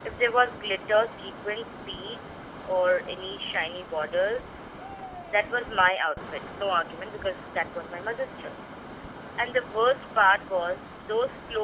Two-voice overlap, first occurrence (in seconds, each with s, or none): none